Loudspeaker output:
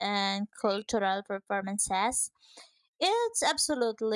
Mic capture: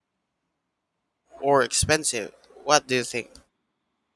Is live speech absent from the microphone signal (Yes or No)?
No